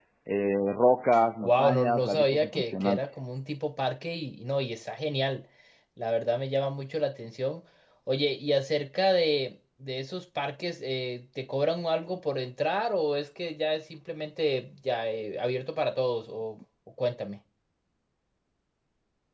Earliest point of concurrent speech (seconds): 1.4 s

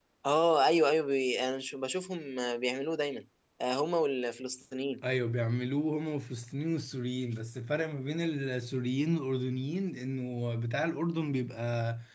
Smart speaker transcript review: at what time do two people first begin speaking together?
none

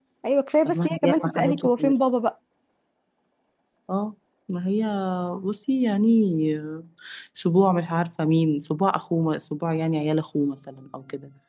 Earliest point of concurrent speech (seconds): 0.6 s

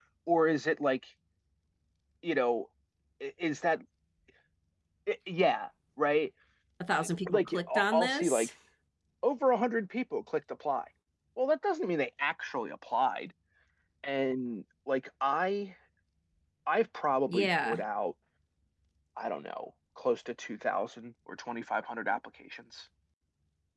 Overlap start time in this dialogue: 7.3 s

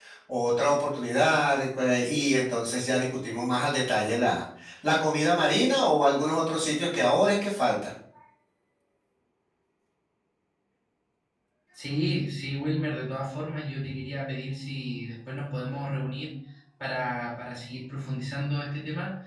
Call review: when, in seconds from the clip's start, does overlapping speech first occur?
none

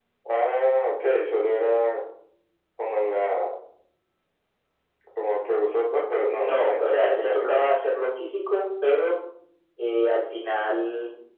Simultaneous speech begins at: 6.3 s

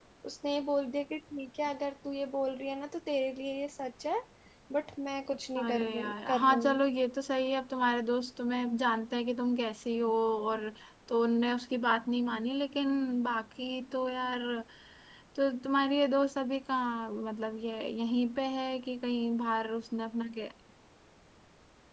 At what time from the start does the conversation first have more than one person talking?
5.6 s

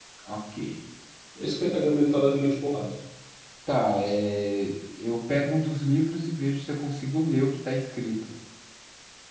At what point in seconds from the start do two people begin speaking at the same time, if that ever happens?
none

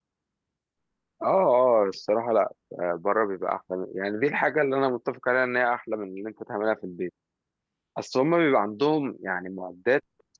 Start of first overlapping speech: none

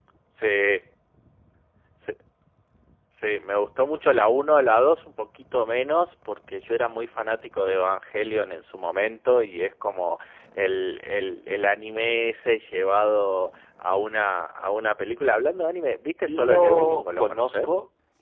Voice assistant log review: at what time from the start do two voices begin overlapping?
16.3 s

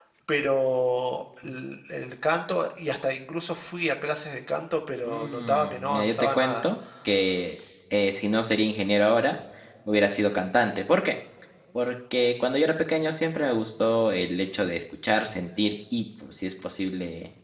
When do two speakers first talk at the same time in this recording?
5.0 s

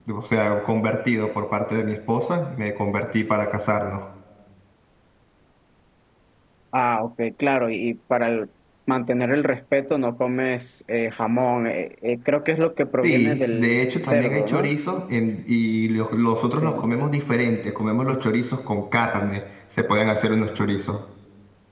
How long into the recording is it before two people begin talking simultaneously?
13.0 s

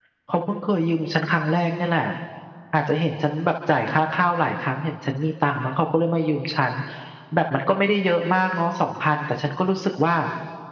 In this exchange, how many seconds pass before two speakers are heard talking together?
none

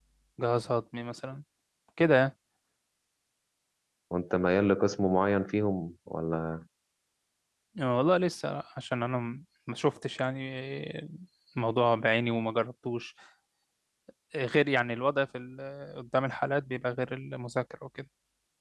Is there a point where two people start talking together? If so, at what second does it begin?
none

